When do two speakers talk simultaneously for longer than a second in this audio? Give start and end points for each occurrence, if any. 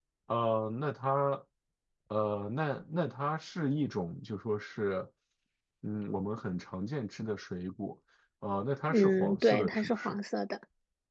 8.9-10.2

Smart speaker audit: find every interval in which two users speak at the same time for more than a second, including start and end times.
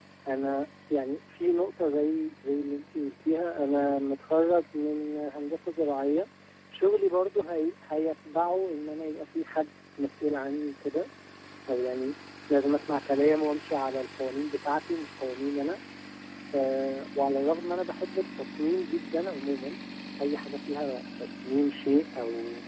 none

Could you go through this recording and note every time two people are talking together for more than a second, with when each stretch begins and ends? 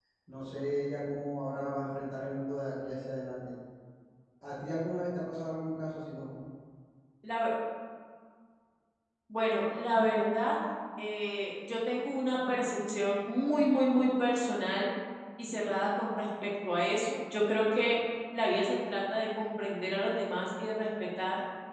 none

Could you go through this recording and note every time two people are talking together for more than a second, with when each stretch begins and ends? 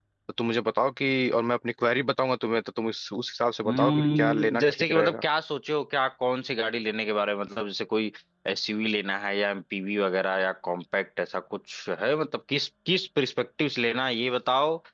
3.6-5.2

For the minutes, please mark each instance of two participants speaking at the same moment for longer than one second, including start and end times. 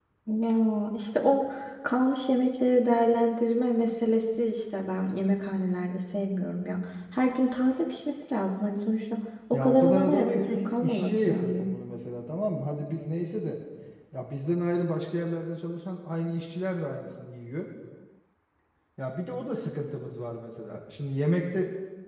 9.5-11.7

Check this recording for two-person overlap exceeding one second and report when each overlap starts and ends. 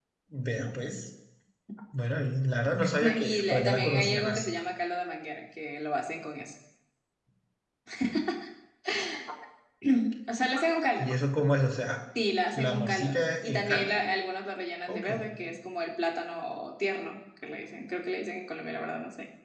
3.0-4.5, 12.5-13.9

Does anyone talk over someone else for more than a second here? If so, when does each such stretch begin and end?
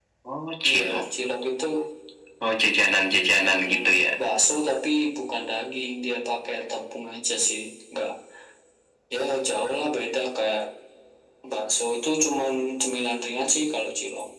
none

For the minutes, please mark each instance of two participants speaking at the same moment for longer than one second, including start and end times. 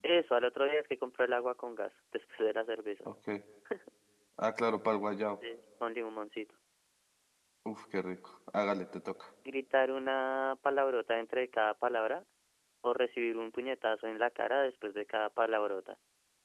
none

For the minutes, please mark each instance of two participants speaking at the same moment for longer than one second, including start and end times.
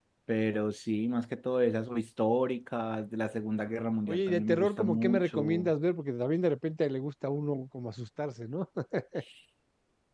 4.1-5.7

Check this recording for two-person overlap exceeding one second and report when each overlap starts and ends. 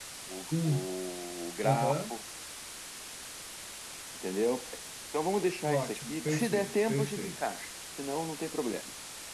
5.6-7.4

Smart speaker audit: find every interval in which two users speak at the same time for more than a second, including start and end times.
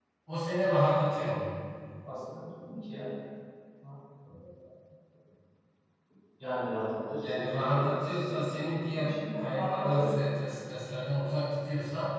7.2-10.1

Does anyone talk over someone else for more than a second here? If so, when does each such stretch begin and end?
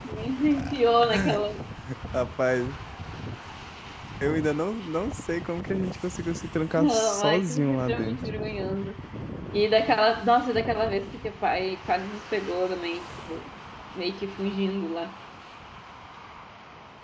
6.8-8.2

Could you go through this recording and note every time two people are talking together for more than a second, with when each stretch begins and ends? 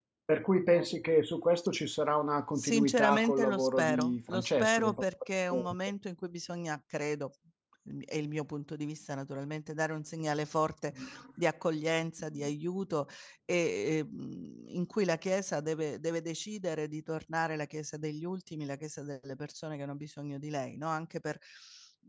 2.6-5.0

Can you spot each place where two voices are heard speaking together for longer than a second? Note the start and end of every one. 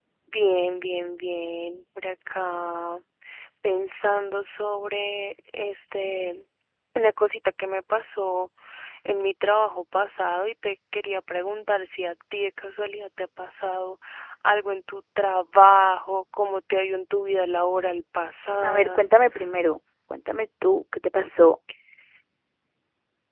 none

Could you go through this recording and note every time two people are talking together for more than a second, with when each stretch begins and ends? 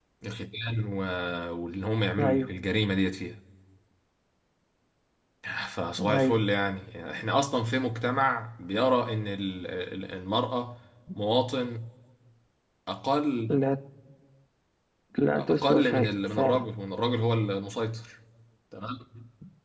15.4-16.7

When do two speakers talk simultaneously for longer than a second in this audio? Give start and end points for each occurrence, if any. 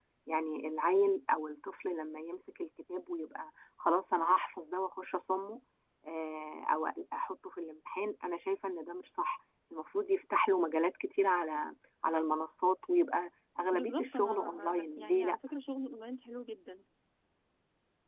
13.7-15.4

